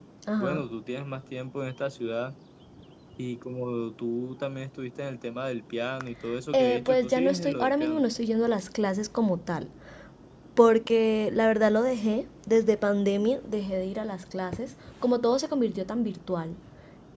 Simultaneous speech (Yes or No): Yes